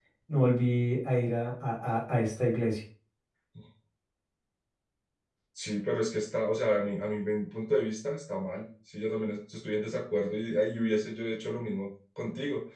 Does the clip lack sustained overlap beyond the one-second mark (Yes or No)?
Yes